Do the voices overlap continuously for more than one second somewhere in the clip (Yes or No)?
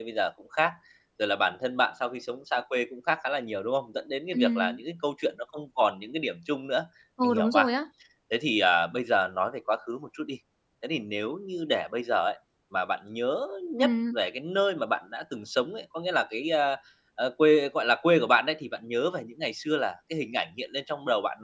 No